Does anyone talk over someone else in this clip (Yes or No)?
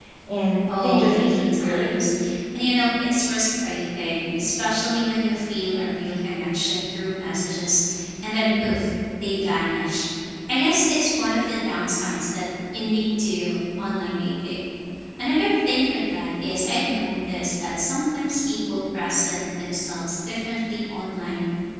Yes